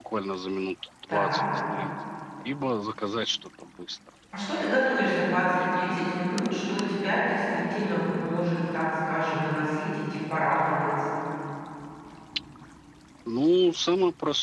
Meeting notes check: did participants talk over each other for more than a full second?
No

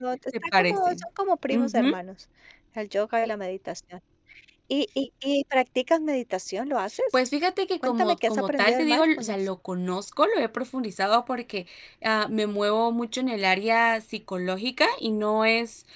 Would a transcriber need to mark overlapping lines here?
Yes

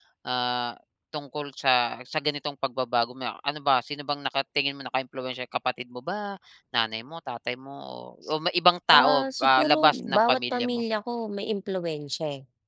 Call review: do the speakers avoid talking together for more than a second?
No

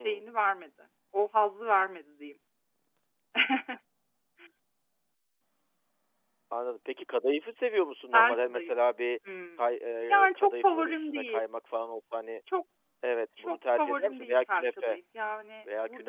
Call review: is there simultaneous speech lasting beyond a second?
Yes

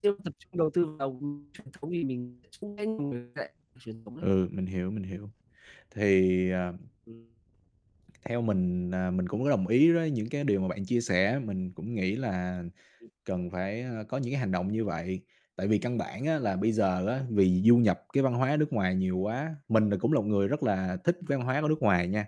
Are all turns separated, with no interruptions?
Yes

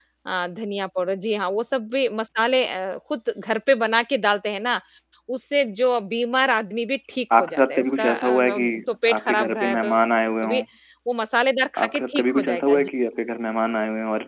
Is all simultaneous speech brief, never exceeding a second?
No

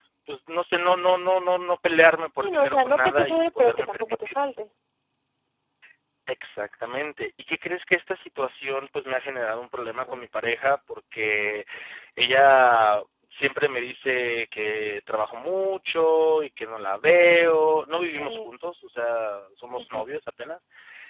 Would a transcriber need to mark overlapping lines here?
Yes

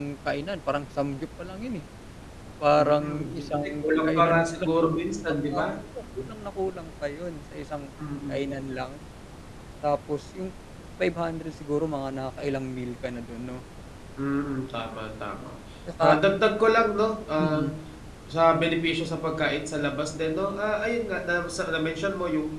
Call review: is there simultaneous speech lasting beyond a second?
Yes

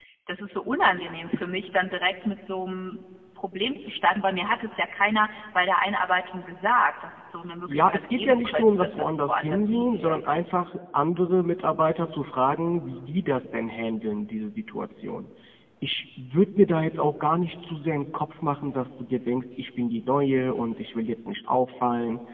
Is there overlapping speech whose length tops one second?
Yes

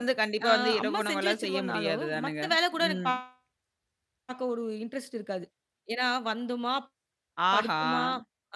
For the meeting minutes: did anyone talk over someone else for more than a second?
Yes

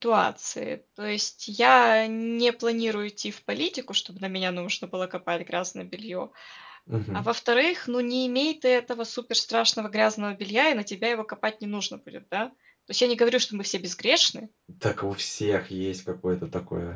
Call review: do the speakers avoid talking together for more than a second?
Yes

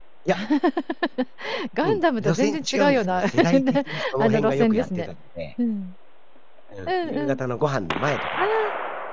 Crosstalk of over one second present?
Yes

